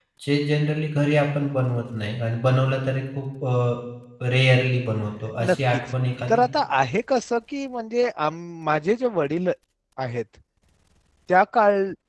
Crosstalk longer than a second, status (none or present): none